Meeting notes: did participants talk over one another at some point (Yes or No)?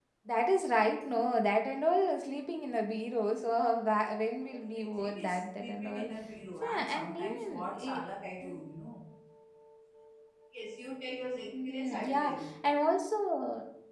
Yes